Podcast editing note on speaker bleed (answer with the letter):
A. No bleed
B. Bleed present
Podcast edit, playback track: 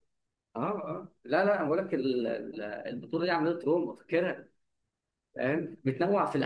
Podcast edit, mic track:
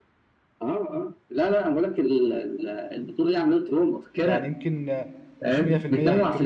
B